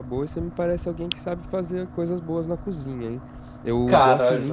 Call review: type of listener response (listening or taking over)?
listening